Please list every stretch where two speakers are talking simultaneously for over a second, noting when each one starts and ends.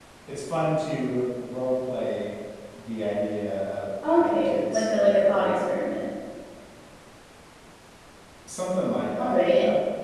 4.1-5.8

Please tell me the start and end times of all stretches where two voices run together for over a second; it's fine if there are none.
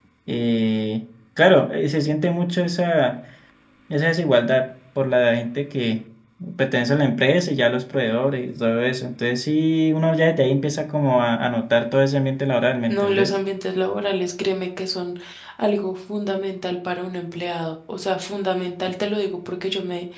none

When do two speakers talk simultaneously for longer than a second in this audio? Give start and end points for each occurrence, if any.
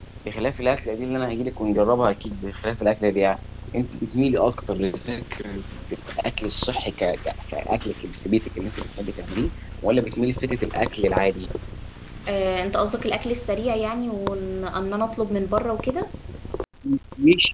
none

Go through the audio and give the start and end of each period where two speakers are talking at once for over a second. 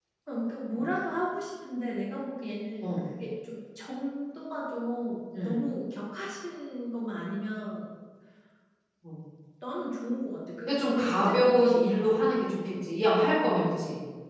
10.7-12.8

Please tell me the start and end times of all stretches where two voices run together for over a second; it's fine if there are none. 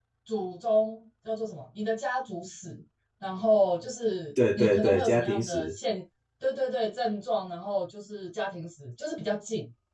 4.5-5.7

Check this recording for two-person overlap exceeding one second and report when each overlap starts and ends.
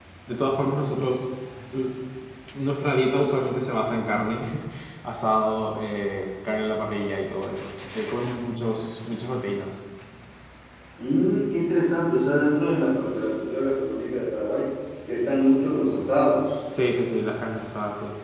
none

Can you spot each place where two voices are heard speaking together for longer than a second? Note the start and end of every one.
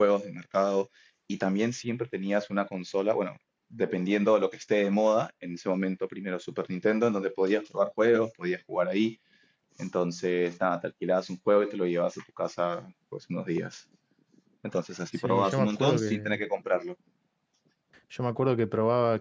15.2-16.4

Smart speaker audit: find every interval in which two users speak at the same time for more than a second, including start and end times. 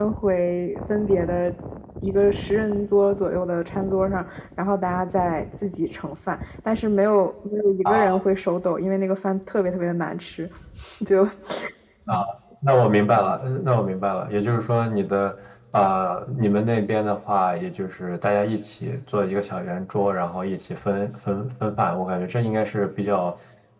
none

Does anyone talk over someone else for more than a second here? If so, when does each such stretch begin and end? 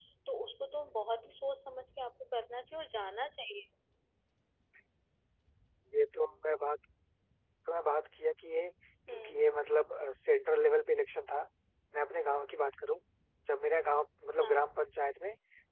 none

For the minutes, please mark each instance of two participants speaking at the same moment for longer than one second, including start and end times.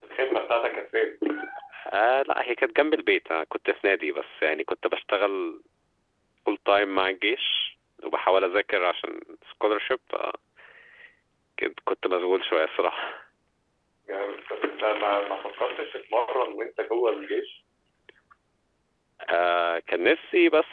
none

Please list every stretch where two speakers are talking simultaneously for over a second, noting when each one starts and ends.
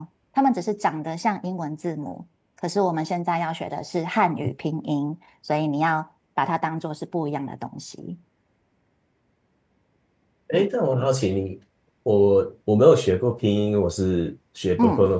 none

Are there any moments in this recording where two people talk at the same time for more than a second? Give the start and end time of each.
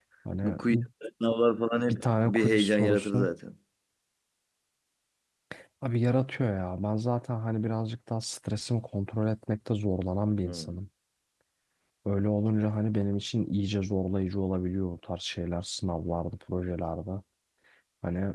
1.9-3.3

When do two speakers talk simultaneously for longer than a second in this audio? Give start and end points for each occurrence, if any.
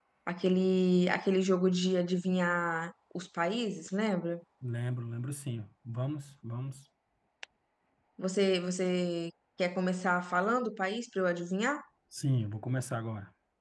none

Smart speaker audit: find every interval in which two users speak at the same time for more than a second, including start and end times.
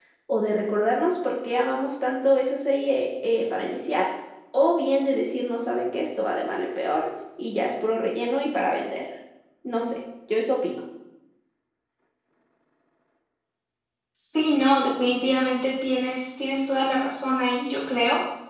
none

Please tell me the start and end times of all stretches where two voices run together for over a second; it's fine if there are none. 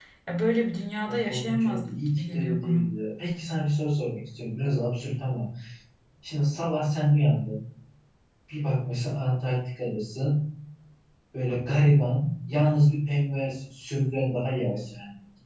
1.1-2.9

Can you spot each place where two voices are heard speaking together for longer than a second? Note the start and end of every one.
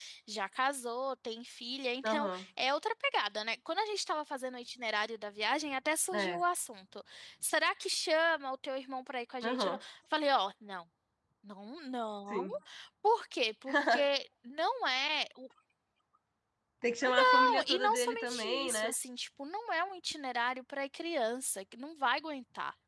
17.3-18.9

